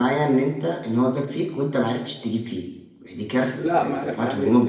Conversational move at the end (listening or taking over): taking over